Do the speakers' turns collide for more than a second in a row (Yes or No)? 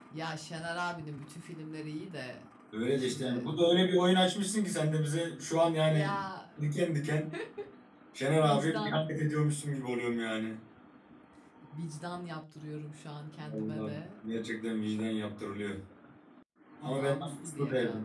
Yes